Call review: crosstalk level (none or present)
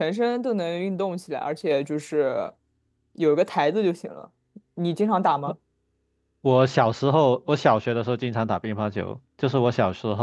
none